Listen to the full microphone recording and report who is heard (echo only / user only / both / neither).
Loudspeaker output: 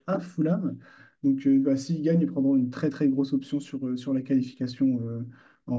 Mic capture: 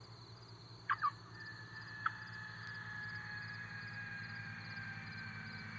neither